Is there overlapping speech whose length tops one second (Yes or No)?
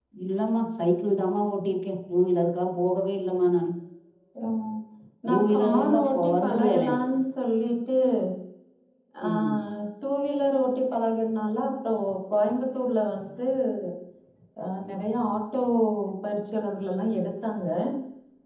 Yes